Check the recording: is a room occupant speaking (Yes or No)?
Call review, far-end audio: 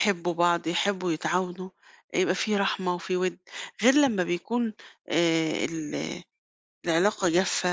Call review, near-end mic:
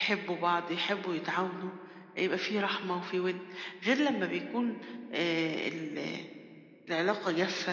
No